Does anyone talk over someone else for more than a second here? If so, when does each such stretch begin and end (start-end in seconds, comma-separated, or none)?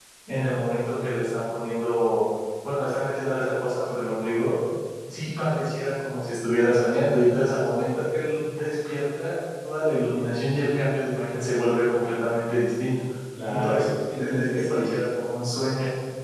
13.5-15.0